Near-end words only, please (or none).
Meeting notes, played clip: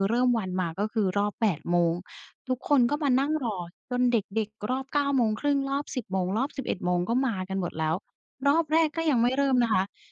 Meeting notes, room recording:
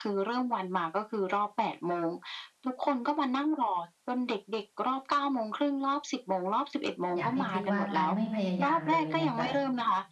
อยากให้คิดว่าการไม่พยายามเลยเนี่ยจะ